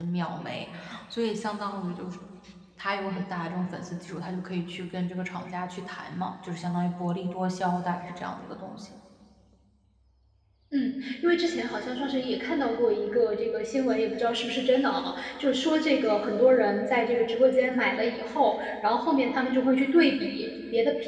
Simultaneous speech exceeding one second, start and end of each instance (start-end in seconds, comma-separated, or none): none